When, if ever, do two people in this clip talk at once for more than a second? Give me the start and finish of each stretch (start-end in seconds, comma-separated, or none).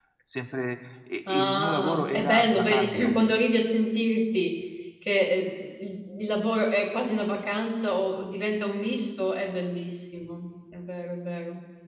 1.3-3.2